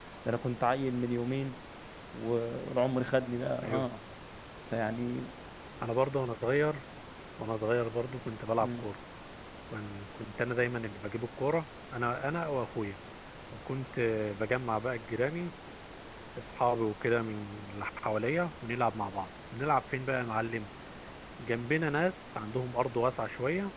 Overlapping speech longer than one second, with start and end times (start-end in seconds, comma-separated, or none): none